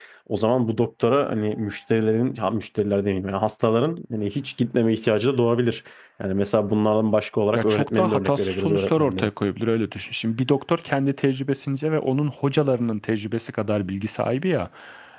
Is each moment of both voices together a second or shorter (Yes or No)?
No